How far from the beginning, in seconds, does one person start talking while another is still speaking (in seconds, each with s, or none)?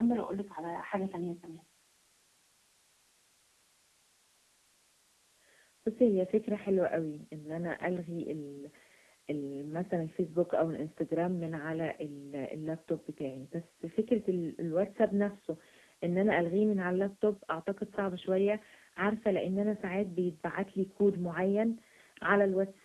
none